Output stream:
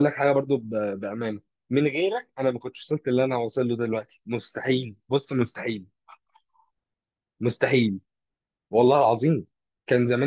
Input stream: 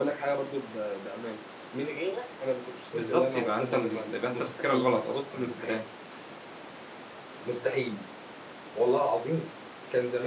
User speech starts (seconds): 2.9 s

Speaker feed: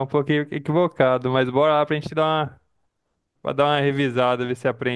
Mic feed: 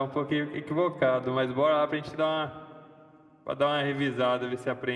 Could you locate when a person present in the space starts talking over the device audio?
none

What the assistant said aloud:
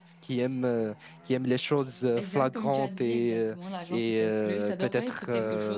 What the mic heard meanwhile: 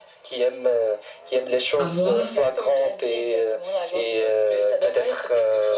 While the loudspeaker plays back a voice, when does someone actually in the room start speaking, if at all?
1.8 s

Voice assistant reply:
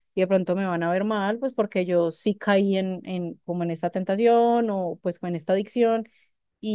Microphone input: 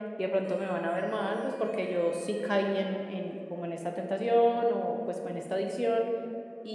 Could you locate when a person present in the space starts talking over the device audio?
none

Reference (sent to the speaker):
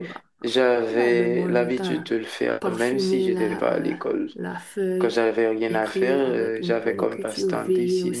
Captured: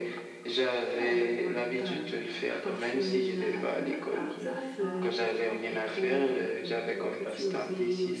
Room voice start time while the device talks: 4.1 s

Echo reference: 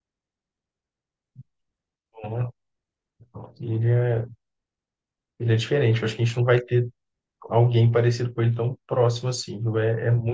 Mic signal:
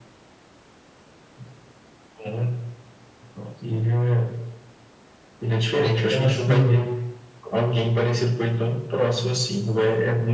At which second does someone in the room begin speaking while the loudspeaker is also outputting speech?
5.7 s

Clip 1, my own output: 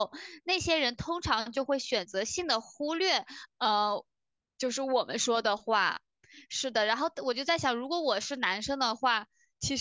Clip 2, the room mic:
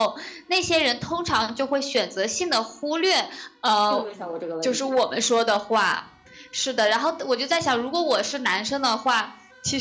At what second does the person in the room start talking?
3.9 s

